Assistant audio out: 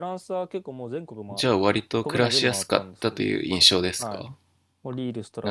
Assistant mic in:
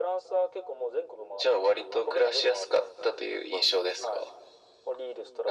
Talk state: echo only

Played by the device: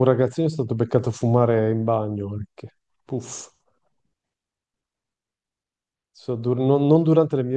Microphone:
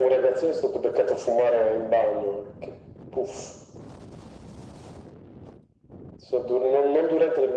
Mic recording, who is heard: echo only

